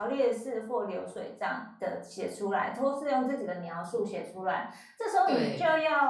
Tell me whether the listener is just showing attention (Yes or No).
Yes